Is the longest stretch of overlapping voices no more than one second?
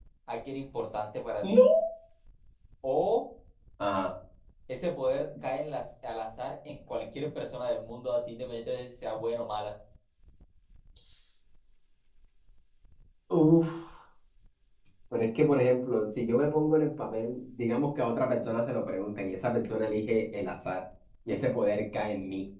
Yes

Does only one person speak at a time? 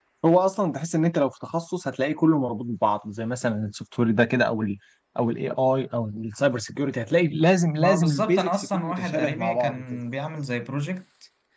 No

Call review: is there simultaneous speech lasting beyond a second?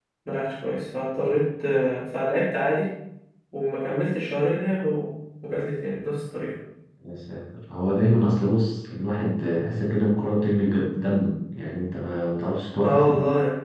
No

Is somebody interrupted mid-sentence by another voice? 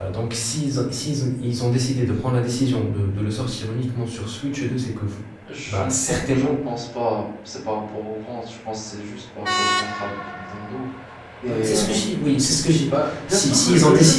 Yes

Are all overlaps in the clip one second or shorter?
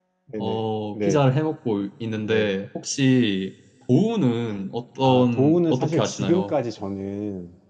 No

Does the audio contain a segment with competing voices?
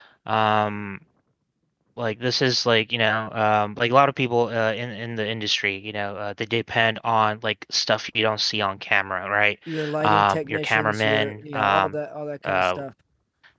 Yes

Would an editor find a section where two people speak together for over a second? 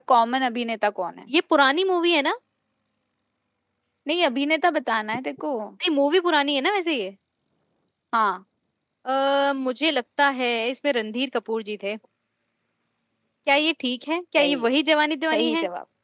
No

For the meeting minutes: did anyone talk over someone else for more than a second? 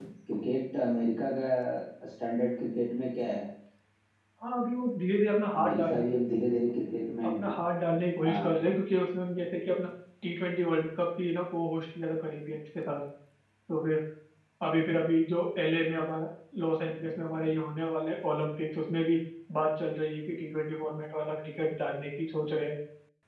No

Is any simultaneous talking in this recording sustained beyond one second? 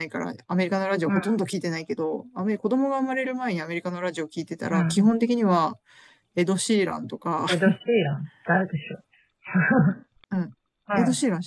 No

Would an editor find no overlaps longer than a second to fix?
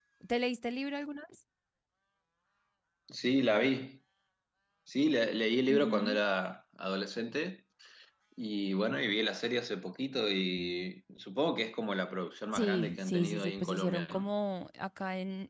No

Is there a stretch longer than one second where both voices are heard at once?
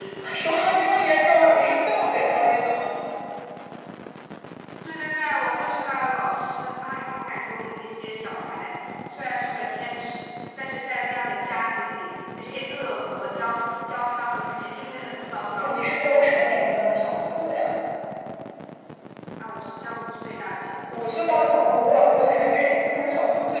No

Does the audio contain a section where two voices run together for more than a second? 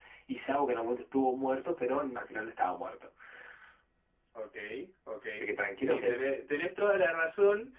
No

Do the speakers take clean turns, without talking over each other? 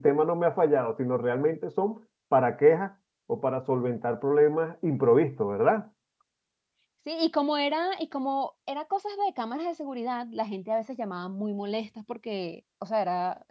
Yes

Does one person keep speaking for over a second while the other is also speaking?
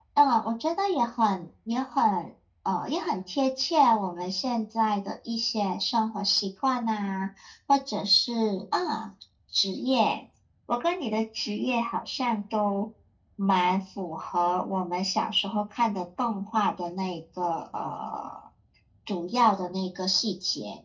No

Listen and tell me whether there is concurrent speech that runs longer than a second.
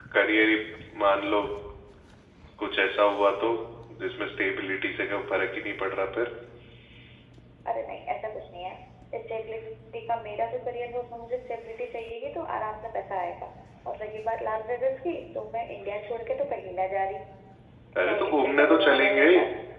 Yes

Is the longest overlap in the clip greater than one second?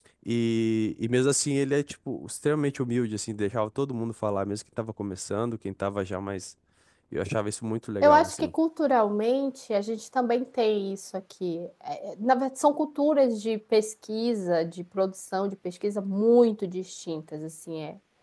No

